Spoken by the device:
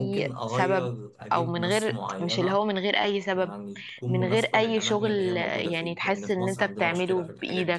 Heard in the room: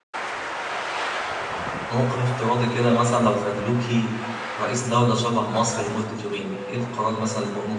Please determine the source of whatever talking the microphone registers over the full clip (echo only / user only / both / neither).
user only